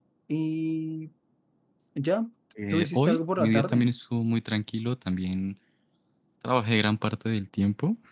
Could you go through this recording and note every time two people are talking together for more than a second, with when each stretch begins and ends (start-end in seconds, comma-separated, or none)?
2.7-3.9